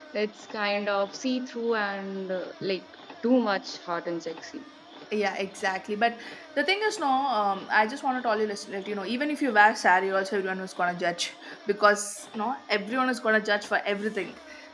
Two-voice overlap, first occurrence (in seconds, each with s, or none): none